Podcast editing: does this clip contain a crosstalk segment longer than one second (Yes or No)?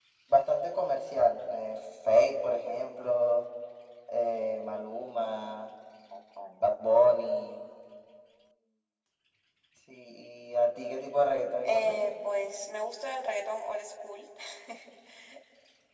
No